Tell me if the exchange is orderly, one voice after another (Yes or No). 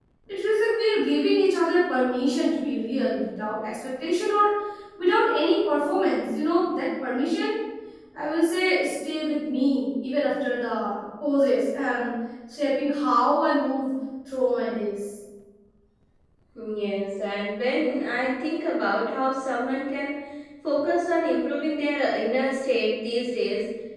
Yes